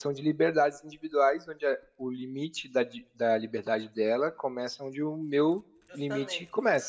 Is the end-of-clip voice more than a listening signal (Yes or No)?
Yes